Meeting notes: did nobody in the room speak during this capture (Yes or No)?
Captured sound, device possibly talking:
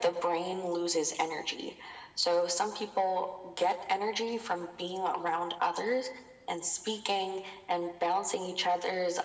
Yes